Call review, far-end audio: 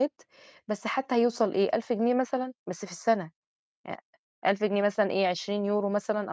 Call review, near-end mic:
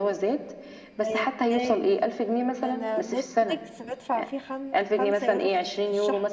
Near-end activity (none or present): present